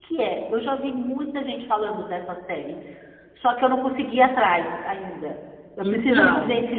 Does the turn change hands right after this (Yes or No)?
No